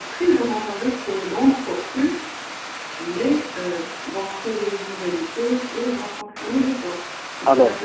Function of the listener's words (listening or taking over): taking over